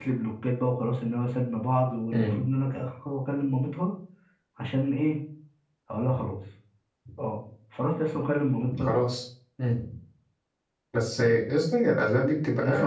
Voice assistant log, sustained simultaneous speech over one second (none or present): none